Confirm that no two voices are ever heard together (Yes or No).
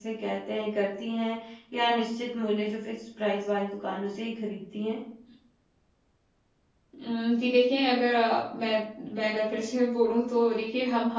Yes